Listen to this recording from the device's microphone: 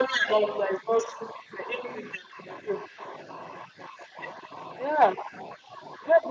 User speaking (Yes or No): No